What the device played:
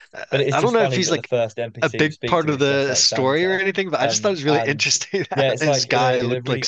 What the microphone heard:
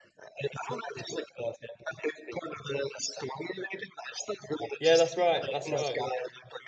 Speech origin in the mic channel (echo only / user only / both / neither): both